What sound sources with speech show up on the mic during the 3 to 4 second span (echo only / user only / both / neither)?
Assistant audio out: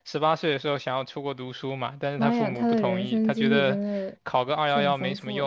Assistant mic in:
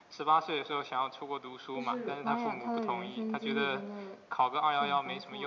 echo only